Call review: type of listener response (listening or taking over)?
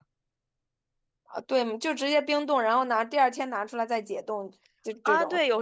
taking over